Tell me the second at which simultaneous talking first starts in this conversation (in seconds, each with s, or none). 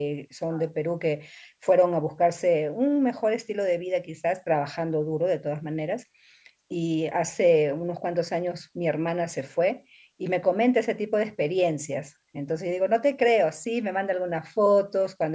none